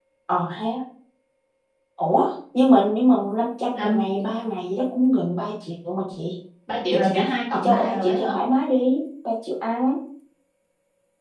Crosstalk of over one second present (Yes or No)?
Yes